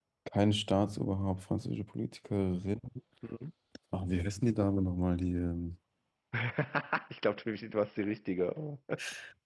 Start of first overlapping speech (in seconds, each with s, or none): none